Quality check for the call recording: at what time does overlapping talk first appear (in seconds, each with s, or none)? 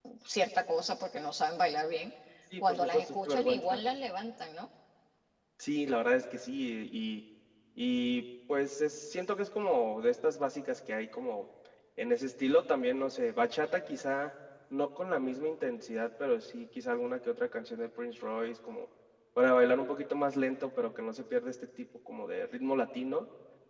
2.6 s